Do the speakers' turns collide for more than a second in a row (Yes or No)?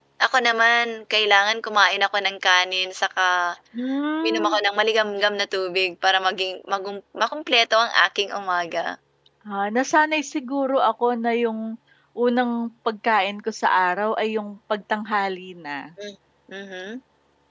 No